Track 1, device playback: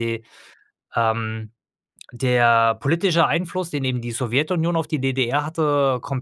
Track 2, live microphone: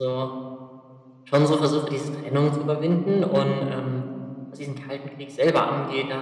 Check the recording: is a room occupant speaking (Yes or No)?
Yes